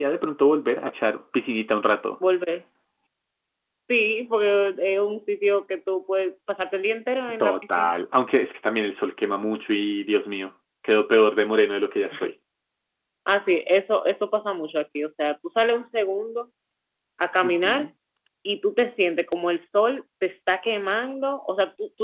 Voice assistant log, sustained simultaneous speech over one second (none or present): none